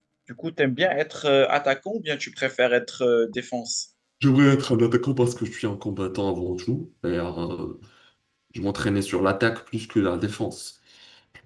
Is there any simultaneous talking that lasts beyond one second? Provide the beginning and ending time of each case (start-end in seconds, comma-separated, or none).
none